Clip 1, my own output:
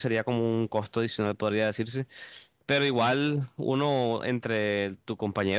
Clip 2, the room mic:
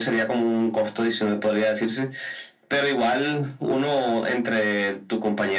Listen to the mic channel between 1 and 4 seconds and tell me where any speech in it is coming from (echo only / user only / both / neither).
echo only